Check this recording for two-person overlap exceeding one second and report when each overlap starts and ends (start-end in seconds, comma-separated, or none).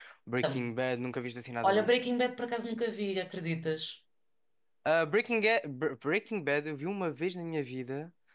none